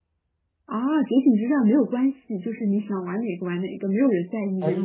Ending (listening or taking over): taking over